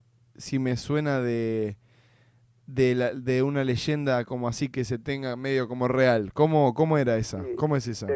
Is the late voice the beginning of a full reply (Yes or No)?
Yes